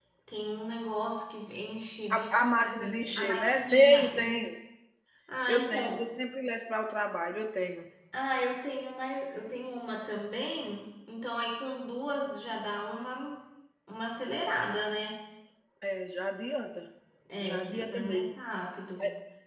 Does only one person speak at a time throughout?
No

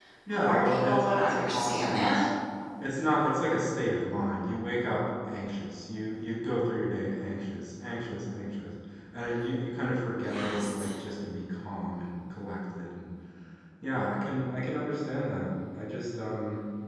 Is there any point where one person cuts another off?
Yes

